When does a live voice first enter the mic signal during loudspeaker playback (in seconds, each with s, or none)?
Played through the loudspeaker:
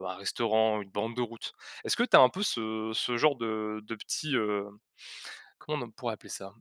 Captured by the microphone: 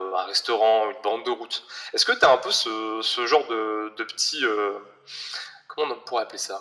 none